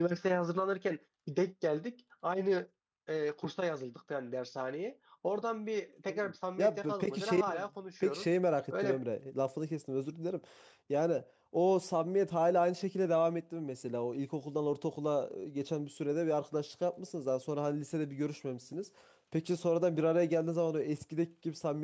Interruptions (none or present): present